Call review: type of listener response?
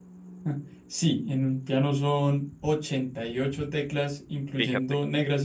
listening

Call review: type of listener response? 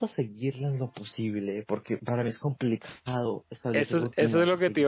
taking over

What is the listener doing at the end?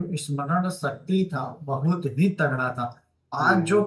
listening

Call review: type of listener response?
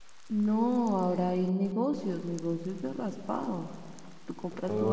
listening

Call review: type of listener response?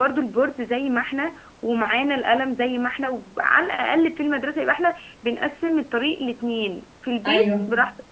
listening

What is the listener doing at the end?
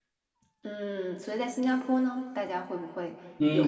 taking over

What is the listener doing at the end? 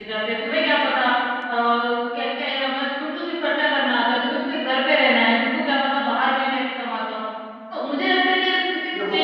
listening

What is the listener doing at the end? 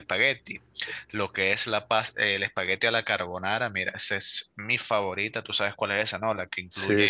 listening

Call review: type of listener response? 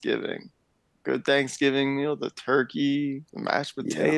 listening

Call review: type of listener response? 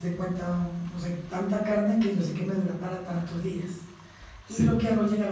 listening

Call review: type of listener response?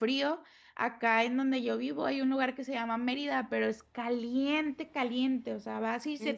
listening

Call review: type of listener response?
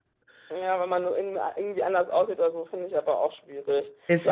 listening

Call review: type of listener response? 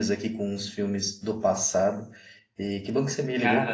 listening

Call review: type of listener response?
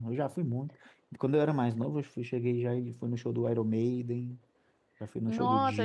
taking over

